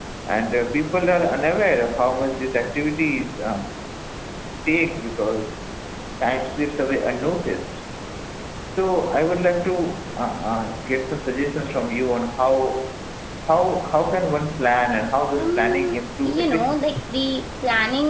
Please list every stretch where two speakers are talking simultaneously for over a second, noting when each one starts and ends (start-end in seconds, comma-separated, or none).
15.4-16.8